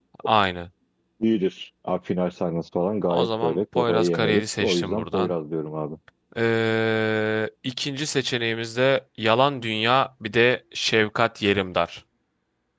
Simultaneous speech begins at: 3 s

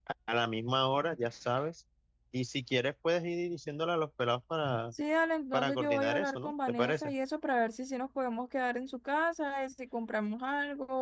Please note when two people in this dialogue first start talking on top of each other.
6 s

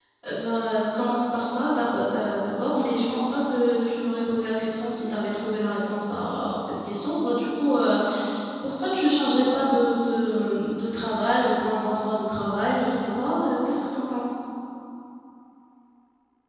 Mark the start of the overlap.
none

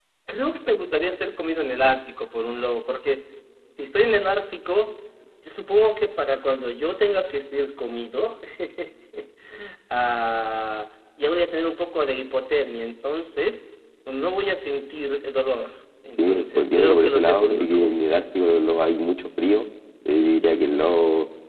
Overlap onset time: 16 s

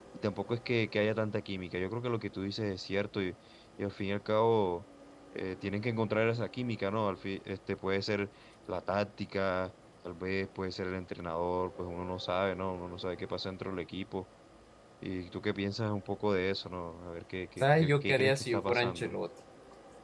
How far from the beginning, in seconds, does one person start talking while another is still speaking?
18 s

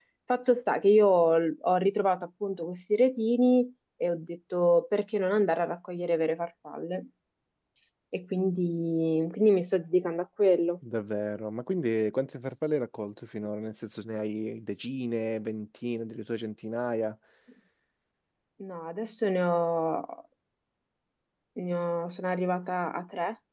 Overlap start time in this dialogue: none

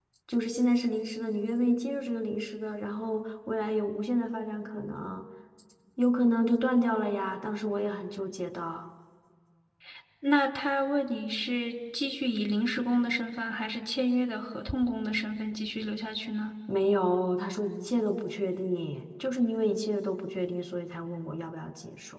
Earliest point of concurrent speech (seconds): none

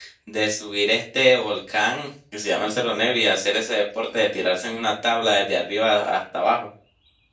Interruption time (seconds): none

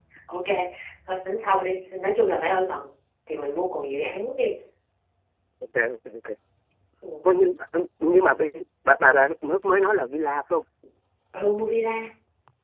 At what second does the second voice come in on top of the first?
none

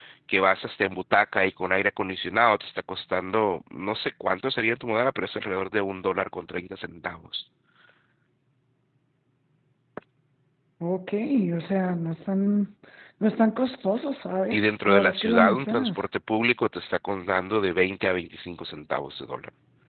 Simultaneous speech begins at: 15 s

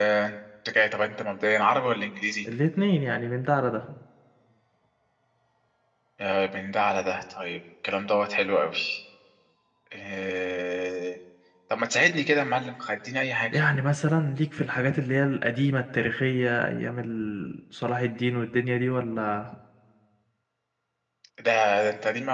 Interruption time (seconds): none

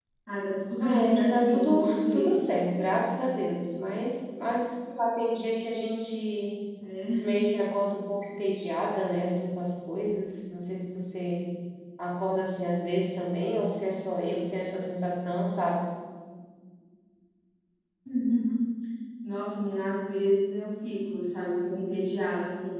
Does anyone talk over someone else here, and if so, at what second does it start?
1 s

